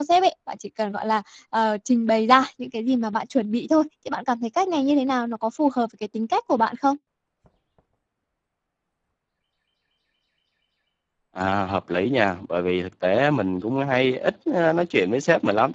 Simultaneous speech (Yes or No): No